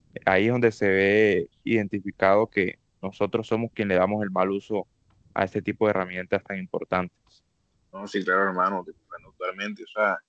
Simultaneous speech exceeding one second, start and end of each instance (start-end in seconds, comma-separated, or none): none